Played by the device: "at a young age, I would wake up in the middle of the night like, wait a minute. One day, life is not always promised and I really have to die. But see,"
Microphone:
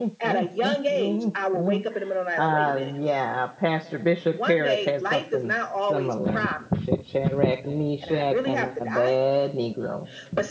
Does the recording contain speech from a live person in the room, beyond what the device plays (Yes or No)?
Yes